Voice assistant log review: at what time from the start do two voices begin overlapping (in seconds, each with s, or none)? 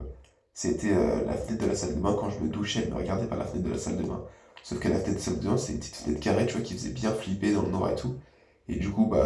none